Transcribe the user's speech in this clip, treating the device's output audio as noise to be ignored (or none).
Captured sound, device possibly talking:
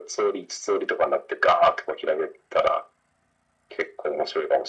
none